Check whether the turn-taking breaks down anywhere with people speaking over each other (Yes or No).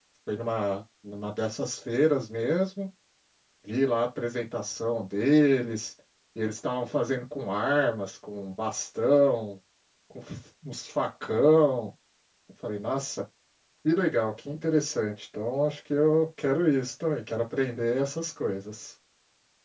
No